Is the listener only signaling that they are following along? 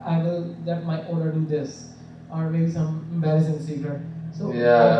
No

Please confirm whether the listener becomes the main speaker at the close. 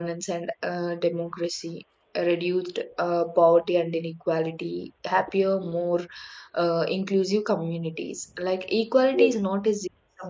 No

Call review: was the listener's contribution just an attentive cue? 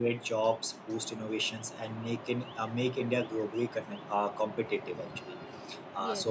Yes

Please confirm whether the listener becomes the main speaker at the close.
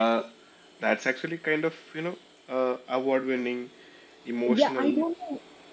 Yes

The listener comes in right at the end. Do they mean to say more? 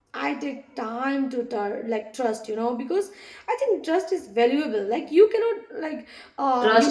No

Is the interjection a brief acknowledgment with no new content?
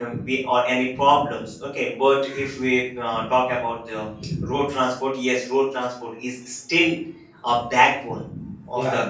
Yes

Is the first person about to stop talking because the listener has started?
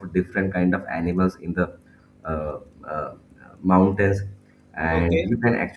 No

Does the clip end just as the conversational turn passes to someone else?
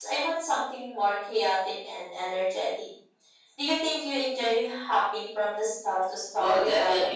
Yes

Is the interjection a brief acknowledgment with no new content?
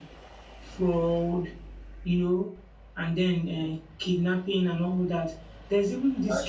Yes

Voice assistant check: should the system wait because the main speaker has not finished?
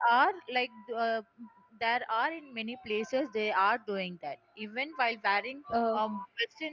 Yes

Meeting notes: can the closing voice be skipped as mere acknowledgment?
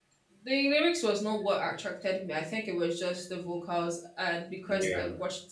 Yes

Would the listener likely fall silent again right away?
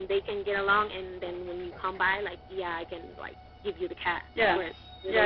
No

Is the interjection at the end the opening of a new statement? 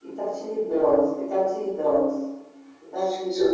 No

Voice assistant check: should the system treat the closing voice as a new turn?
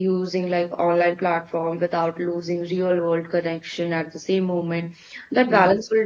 No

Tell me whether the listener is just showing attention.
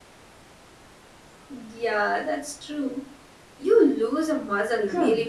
No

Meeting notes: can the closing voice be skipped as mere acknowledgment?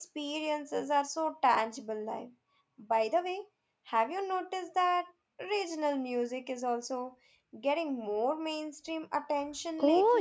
No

